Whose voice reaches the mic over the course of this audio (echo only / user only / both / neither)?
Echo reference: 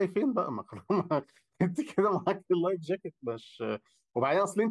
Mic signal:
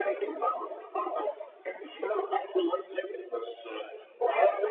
echo only